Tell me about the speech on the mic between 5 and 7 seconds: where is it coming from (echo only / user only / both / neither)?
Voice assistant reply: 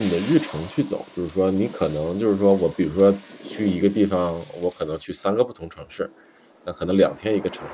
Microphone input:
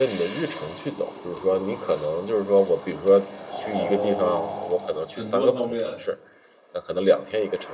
both